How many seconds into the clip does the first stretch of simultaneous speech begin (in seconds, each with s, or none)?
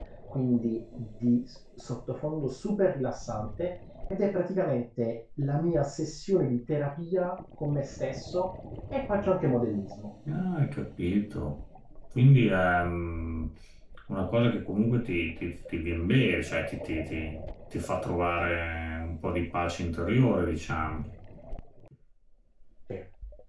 none